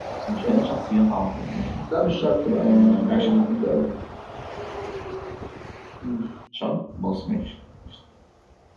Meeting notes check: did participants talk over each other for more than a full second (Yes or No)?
Yes